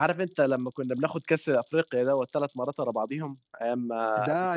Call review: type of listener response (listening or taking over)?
taking over